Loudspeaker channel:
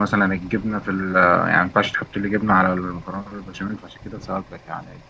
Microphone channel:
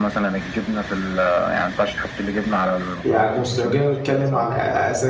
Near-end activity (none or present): present